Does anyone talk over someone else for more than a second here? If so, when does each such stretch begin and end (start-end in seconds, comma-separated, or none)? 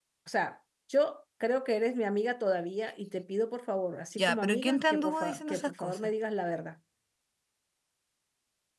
4.2-6.1